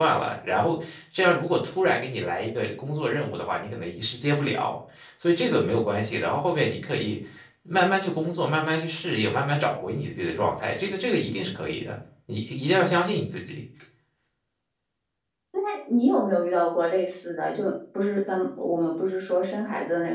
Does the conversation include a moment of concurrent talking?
No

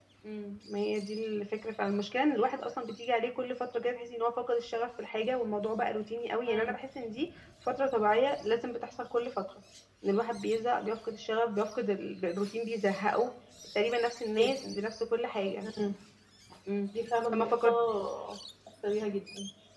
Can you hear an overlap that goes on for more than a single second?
No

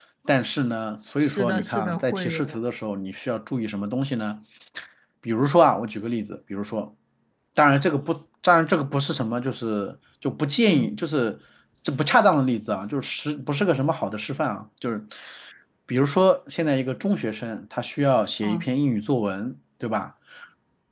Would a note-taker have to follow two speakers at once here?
Yes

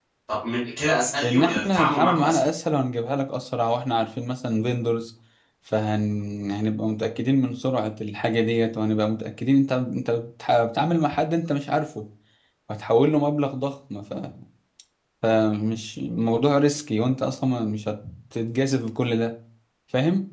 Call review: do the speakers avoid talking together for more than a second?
No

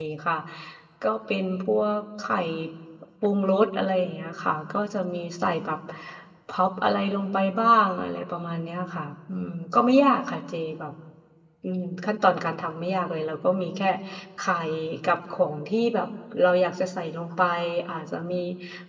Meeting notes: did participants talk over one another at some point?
No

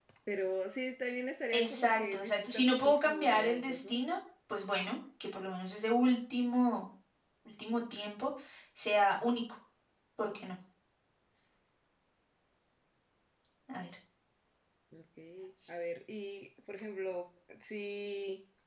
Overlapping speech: Yes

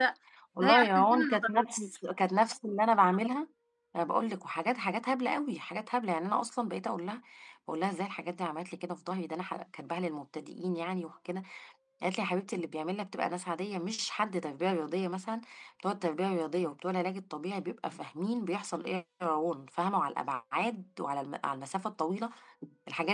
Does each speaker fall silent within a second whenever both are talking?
No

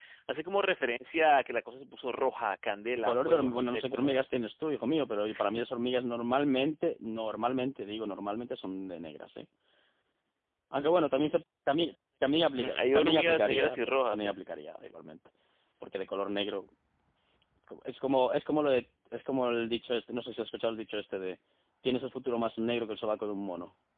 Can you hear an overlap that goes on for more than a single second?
Yes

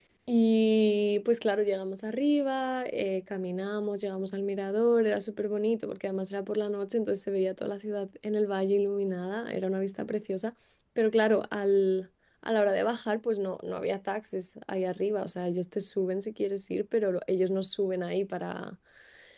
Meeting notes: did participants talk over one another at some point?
No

